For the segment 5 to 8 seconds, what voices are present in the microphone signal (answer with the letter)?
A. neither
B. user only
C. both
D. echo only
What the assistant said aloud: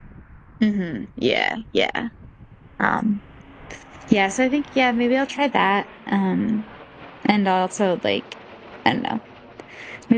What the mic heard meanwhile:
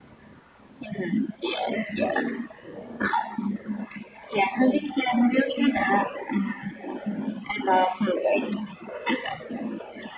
D